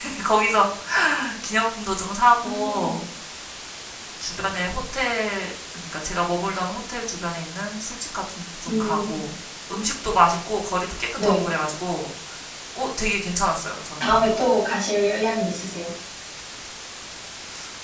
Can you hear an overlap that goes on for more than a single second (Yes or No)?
No